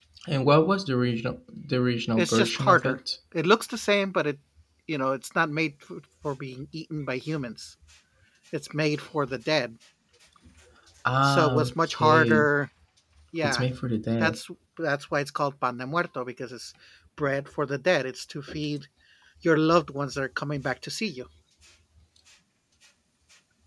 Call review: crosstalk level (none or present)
present